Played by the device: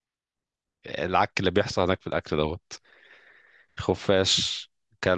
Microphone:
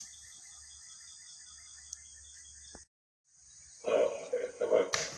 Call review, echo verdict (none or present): none